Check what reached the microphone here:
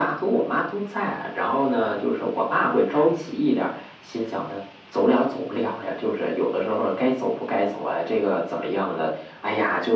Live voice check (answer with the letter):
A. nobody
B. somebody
A